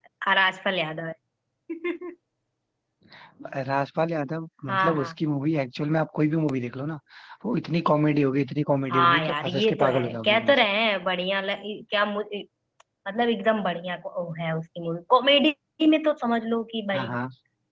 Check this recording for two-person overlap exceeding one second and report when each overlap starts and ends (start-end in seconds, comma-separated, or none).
8.9-10.6